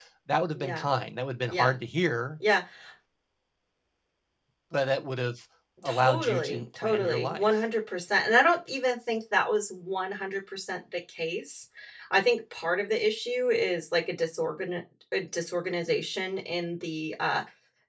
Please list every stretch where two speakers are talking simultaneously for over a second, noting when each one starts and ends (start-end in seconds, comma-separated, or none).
5.8-7.5